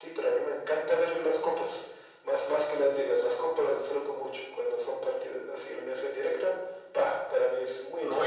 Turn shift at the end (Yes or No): Yes